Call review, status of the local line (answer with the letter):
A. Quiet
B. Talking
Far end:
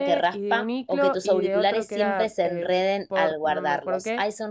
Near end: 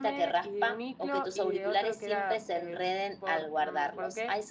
A